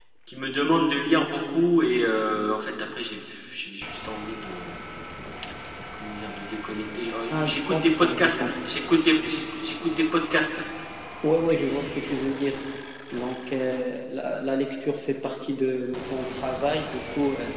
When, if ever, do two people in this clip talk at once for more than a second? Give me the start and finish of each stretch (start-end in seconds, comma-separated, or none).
7.3-8.5